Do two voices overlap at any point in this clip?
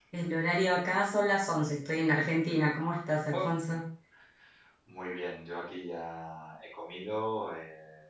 No

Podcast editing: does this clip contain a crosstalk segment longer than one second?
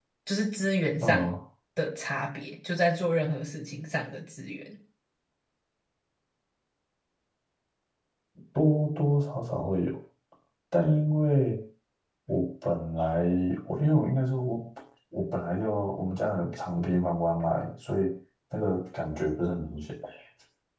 No

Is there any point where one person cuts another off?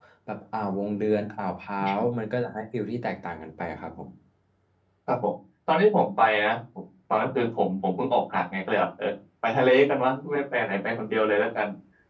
No

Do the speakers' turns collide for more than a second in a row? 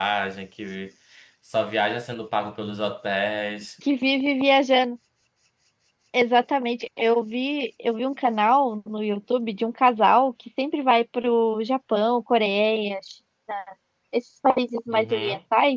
No

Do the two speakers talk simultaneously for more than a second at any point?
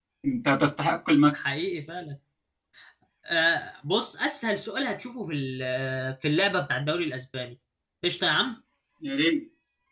No

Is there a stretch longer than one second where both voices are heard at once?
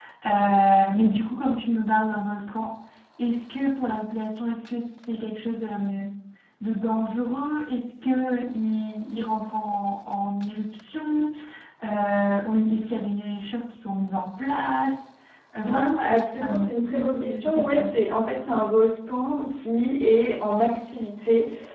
Yes, from 15.6 s

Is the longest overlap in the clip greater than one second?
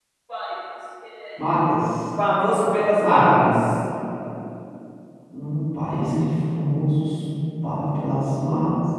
No

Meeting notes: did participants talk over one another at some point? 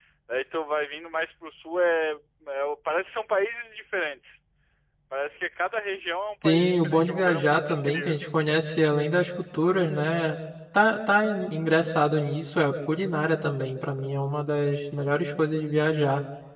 Yes, from 6.4 s

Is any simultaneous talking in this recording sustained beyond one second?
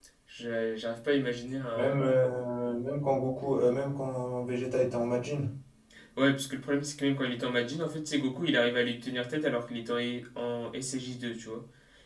No

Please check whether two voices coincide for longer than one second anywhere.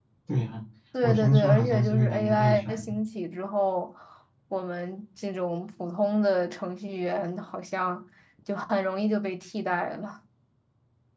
Yes, from 1.0 s

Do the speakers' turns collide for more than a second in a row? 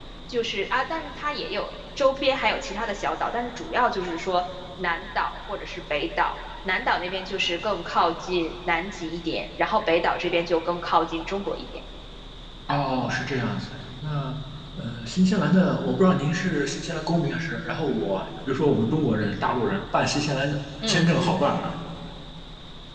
No

